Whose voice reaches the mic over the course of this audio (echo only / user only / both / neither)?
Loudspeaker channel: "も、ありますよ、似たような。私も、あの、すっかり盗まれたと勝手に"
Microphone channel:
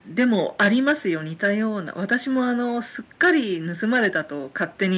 echo only